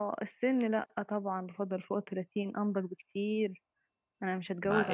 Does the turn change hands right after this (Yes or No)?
Yes